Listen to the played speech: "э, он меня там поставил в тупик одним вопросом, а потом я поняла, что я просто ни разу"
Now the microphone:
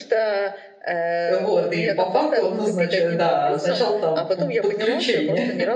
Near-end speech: present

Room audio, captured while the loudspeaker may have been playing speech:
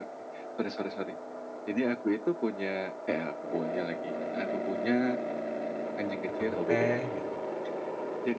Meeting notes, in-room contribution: present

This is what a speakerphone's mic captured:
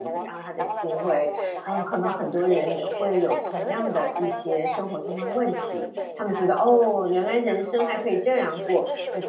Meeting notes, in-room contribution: present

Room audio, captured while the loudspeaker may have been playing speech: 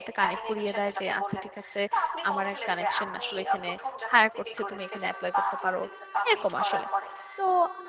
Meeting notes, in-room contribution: present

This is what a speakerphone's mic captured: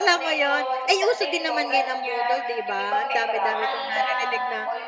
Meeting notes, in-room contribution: present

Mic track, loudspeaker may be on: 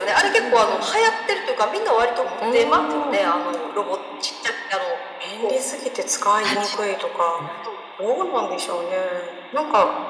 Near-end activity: present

